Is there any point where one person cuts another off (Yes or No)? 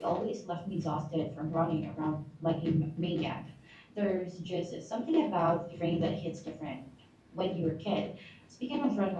No